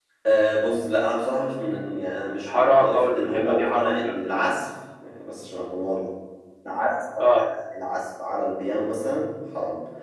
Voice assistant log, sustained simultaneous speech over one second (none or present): present